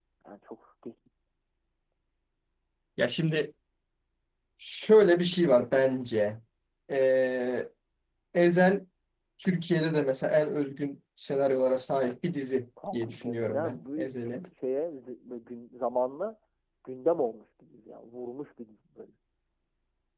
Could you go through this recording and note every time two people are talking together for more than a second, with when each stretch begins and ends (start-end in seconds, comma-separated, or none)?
12.9-14.4